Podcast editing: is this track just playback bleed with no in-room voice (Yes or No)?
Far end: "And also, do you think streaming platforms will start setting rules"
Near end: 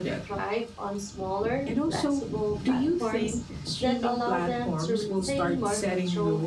No